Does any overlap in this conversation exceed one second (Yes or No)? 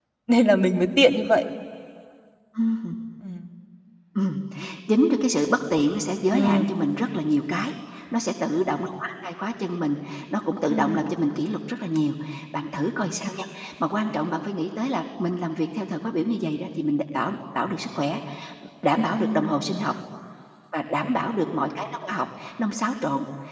No